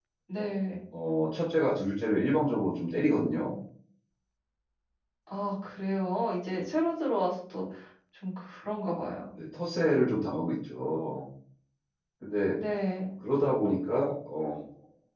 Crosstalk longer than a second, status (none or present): none